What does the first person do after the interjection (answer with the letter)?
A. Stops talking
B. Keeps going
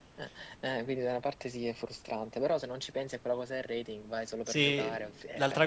A